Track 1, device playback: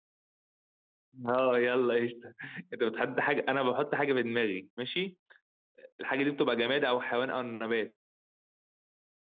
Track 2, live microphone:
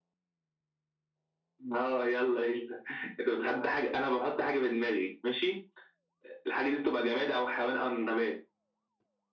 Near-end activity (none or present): none